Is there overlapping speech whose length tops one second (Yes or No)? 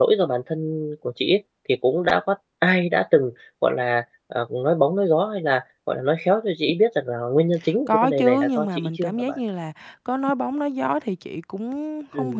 Yes